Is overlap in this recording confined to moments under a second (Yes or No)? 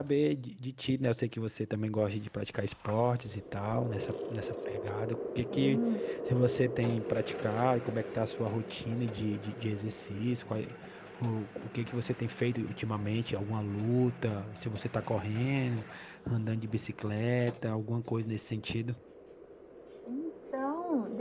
Yes